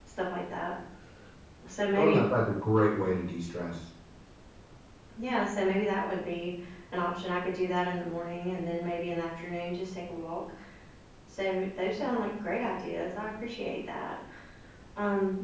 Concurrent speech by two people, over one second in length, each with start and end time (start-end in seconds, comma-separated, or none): none